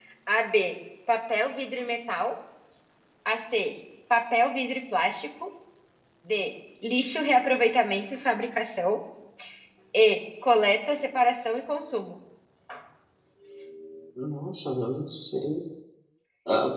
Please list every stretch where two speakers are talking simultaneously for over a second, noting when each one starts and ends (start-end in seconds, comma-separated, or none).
none